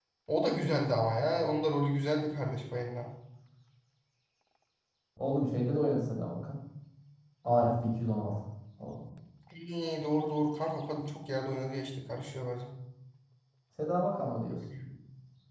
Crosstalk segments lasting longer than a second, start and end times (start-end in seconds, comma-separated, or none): none